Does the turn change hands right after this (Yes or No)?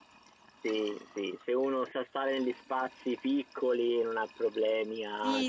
Yes